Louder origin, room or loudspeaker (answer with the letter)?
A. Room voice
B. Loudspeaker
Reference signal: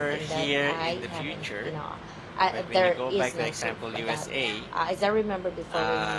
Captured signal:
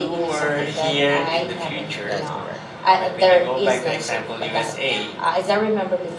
B